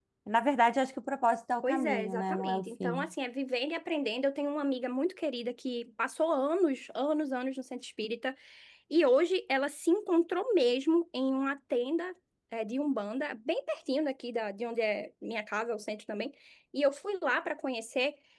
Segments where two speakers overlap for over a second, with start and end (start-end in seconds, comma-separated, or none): 1.6-3.1